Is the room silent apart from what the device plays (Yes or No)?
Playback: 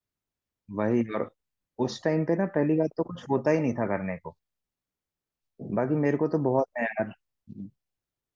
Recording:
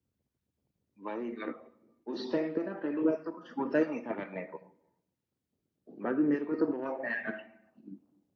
Yes